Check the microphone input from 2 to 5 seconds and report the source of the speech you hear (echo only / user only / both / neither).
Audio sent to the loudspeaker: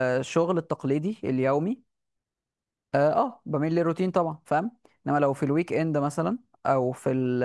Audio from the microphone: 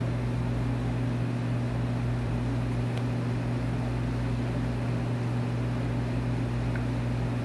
neither